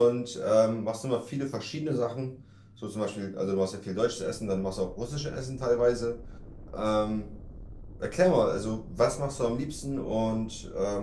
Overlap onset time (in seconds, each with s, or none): none